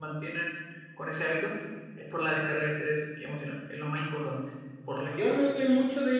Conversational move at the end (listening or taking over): taking over